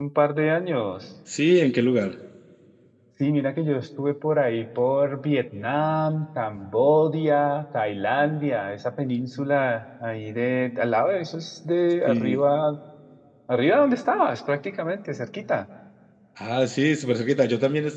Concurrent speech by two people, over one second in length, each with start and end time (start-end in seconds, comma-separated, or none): none